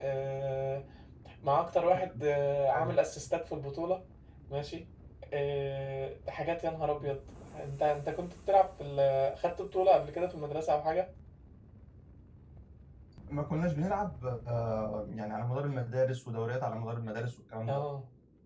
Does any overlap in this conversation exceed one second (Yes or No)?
No